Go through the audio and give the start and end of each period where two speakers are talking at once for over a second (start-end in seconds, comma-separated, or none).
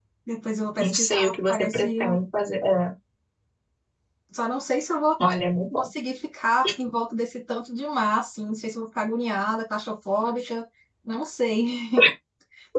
0.8-2.2